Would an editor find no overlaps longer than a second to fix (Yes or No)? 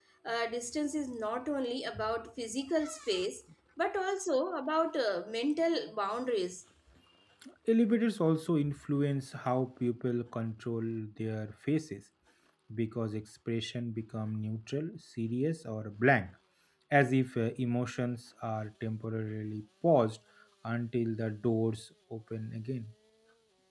Yes